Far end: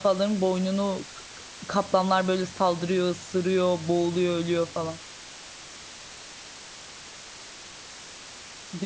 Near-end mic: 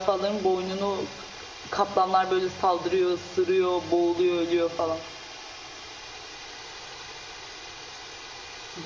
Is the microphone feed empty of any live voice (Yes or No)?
Yes